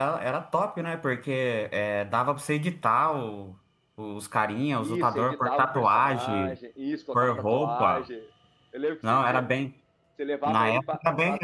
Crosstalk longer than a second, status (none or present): present